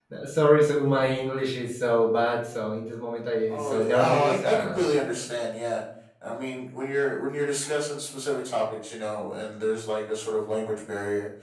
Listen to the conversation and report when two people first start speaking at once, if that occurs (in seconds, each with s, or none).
3.5 s